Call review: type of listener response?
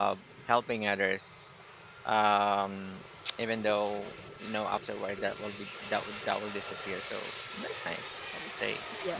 taking over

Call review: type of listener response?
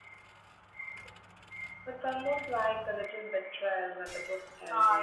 taking over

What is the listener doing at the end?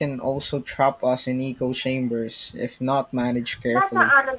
taking over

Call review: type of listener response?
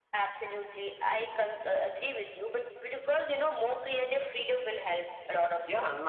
taking over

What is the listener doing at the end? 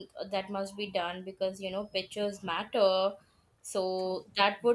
listening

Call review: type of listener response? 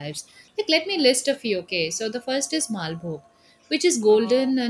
listening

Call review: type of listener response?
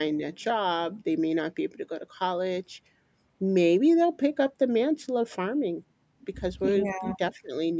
listening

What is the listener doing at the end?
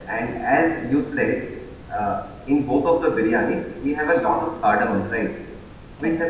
listening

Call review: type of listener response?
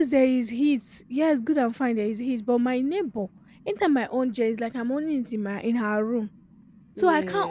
listening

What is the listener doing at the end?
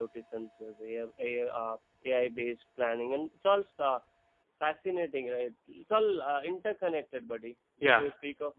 listening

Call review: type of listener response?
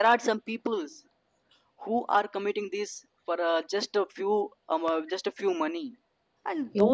listening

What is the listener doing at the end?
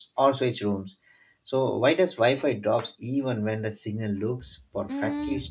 taking over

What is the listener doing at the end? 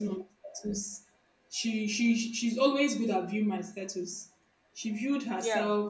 listening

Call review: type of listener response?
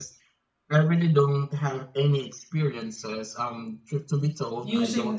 listening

